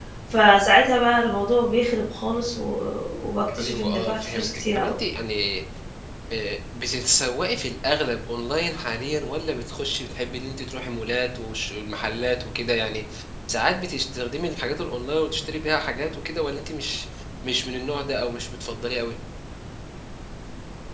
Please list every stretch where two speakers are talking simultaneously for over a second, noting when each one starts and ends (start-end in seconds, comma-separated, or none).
3.6-4.9